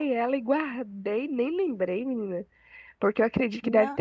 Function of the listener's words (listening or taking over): listening